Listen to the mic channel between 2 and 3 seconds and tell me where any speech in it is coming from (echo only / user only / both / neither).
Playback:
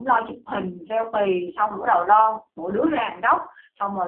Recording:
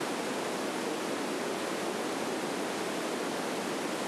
neither